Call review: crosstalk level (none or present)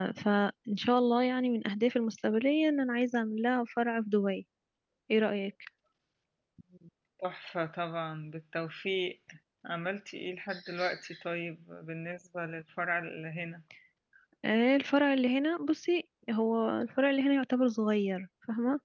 none